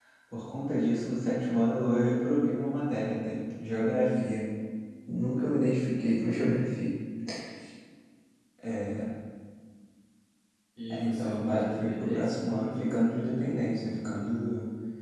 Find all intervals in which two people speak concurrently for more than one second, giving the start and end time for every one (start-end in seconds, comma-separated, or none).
10.9-12.4